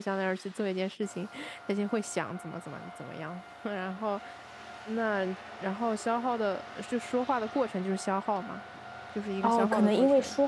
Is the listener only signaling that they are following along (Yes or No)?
No